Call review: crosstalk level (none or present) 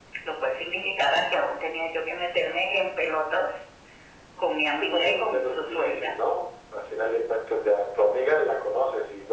present